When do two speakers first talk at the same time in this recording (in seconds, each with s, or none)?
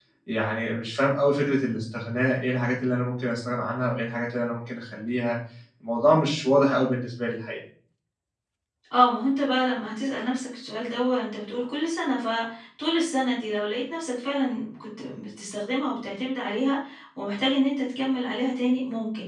none